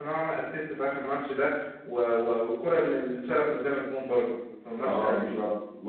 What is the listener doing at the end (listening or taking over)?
taking over